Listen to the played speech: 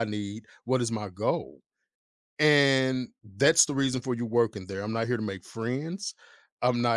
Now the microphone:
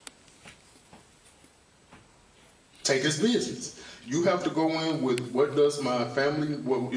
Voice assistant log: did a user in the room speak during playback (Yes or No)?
Yes